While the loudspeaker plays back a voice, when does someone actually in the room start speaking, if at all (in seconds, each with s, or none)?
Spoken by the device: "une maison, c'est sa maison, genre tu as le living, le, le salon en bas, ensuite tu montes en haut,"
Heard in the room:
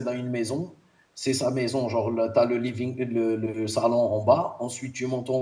none